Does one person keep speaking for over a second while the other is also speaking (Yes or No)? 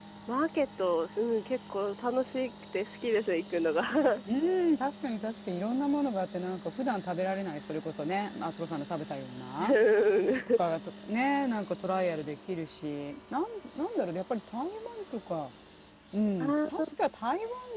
No